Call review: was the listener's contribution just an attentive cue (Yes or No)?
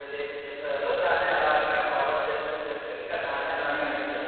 No